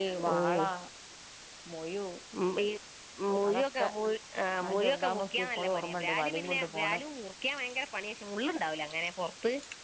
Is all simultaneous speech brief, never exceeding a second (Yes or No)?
No